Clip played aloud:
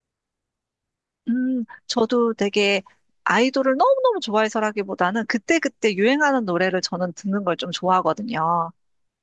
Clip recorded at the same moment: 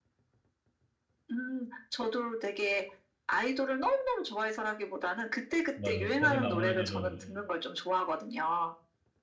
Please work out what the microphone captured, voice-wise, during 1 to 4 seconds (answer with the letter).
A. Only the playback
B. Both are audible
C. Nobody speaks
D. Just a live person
A